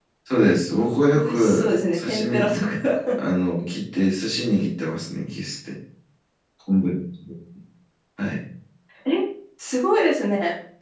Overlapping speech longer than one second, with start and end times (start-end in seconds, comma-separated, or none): 0.7-2.5